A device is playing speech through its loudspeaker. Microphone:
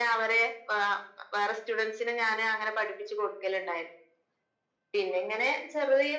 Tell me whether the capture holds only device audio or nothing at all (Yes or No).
Yes